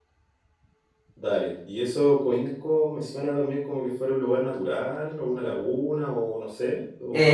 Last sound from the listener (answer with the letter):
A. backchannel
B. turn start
B